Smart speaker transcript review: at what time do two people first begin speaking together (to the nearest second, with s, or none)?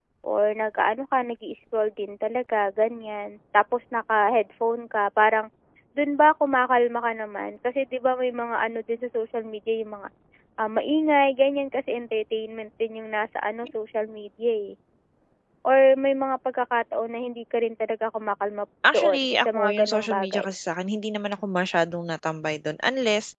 19 s